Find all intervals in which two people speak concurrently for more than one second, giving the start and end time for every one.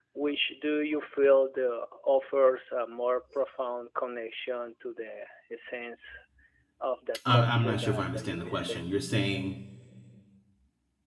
7.3-8.9

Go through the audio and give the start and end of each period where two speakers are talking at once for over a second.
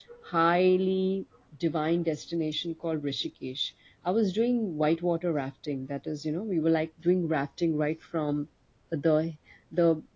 none

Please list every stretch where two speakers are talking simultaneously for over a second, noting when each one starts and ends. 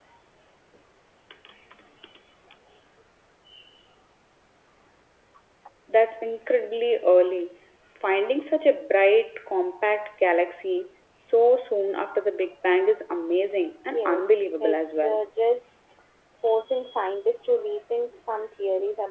13.9-15.2

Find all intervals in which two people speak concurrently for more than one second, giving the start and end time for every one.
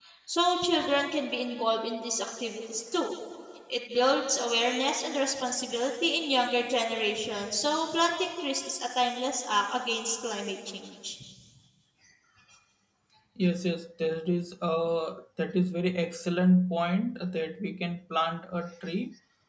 none

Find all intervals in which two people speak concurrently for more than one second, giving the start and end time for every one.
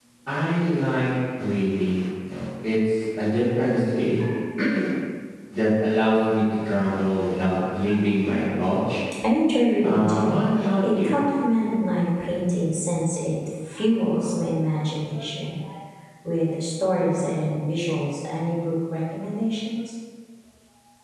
9.8-11.2

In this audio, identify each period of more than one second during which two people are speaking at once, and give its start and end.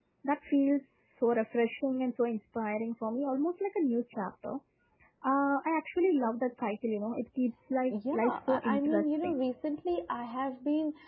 8.1-9.3

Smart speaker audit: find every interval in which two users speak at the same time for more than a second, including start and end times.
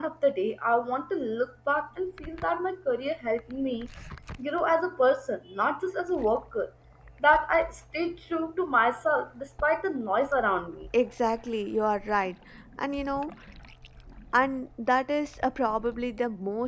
none

